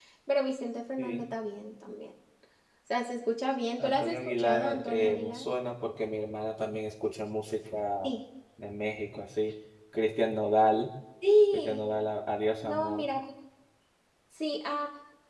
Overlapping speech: Yes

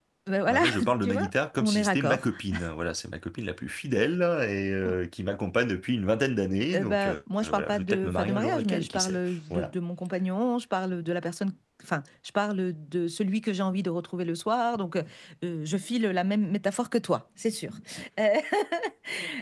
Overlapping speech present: Yes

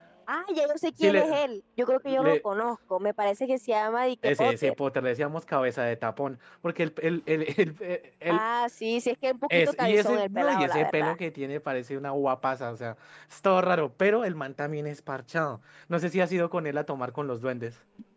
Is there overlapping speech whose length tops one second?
Yes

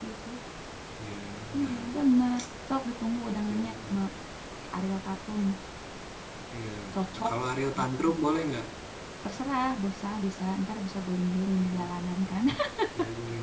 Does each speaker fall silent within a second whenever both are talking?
Yes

